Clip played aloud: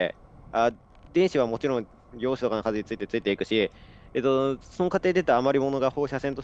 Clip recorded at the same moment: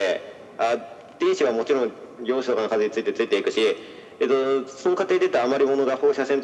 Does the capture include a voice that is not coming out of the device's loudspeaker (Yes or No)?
No